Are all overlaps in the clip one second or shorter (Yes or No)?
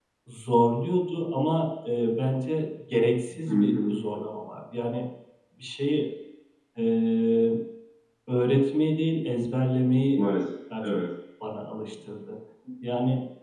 Yes